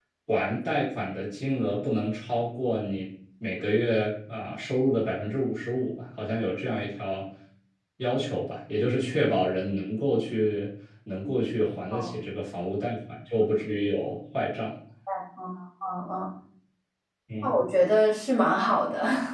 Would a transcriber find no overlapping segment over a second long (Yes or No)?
Yes